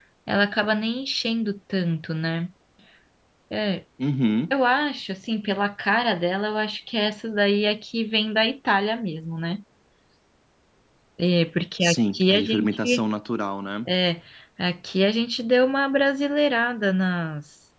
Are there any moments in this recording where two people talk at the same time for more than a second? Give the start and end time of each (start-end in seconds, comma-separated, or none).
11.8-13.0